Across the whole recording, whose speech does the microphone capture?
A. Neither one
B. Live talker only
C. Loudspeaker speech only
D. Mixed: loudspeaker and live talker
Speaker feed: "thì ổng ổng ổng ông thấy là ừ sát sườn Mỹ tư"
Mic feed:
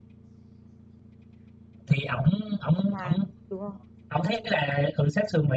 D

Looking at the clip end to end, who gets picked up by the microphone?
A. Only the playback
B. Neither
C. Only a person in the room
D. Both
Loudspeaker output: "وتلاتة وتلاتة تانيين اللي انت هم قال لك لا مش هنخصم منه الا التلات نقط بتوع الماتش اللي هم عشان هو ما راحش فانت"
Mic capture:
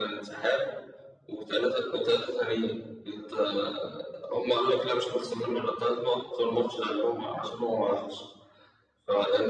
A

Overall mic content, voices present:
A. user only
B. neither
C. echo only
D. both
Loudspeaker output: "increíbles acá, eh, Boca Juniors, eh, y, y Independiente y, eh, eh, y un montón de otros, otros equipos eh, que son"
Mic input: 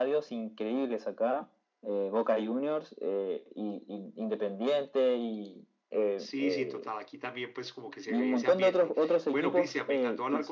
D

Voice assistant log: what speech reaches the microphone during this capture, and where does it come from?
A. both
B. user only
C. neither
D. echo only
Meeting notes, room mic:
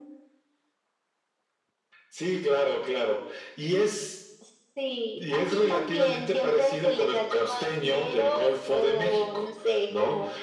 D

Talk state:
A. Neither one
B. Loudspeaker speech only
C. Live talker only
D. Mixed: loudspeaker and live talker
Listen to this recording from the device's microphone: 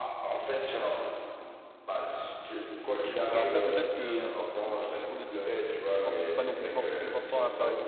D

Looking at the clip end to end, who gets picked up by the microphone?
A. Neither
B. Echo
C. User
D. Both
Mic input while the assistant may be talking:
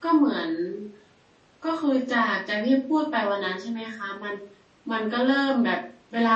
C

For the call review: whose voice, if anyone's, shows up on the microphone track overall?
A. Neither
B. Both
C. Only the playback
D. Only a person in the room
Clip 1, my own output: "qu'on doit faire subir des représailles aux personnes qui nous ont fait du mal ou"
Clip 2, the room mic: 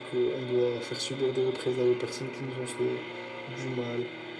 C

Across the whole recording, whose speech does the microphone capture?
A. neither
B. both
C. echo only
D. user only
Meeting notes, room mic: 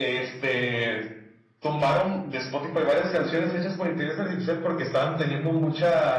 C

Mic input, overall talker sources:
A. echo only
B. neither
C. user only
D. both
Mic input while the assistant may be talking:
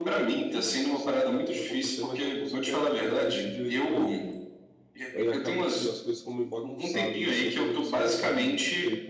D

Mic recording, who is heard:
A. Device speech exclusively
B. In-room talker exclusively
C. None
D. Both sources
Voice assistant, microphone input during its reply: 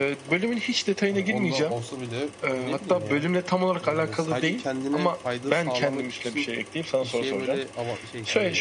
D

